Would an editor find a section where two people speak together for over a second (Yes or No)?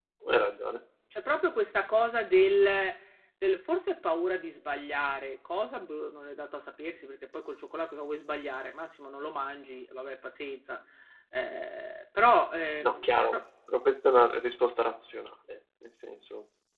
No